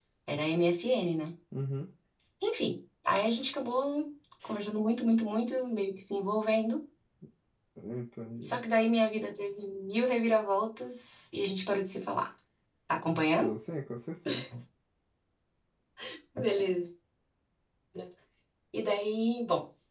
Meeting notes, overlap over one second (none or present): none